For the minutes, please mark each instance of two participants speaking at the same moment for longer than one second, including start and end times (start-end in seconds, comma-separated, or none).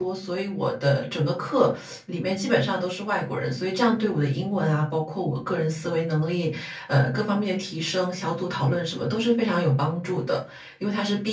none